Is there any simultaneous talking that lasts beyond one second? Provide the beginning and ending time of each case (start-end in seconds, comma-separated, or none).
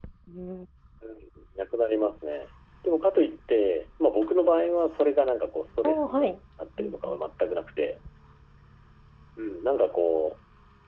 none